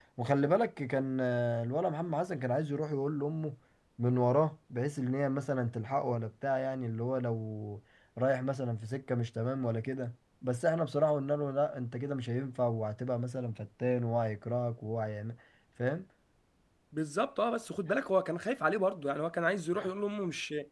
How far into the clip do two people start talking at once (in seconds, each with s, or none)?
none